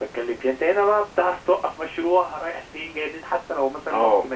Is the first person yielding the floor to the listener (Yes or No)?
No